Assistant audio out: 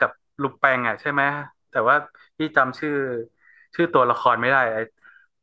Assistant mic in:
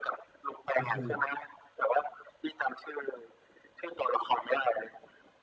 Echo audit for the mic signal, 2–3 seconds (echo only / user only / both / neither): echo only